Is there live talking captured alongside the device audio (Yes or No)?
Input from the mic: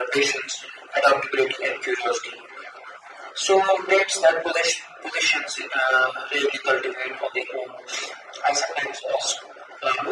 No